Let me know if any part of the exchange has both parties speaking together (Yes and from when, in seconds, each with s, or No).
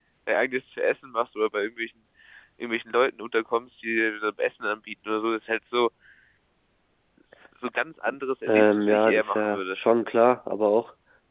Yes, from 8.5 s